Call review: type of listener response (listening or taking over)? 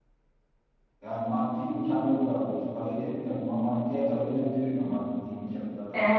taking over